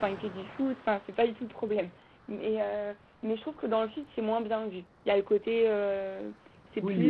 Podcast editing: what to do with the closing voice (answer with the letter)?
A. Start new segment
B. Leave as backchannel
A